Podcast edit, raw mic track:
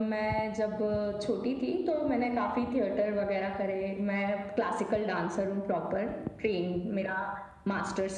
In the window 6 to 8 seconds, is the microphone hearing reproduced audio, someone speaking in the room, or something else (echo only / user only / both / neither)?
echo only